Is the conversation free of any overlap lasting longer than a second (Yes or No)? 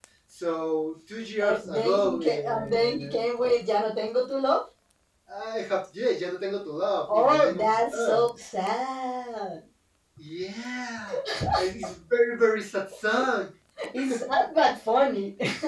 No